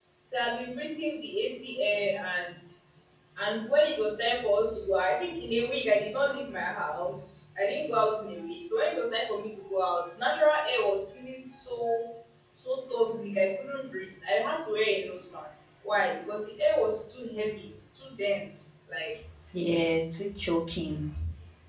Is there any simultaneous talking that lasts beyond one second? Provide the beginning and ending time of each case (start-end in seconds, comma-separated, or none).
none